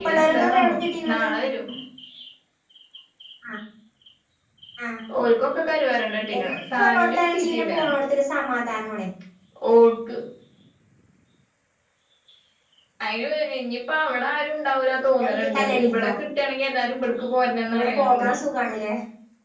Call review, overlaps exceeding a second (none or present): present